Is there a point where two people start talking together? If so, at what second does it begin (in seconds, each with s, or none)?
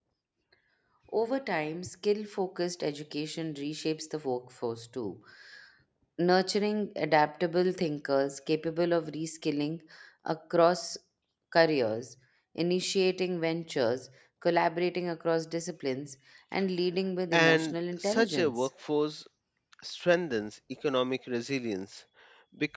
17.3 s